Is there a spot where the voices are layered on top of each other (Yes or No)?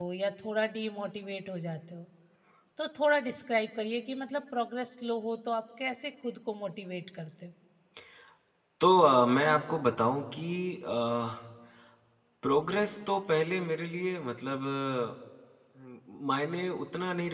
No